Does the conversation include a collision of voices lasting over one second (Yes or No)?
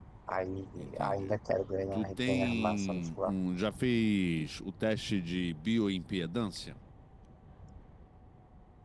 Yes